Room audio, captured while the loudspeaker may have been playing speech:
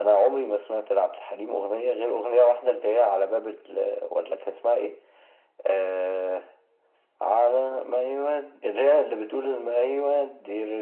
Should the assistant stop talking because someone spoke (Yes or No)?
No